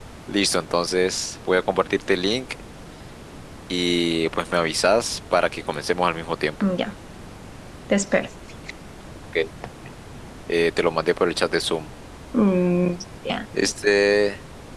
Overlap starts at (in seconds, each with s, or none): none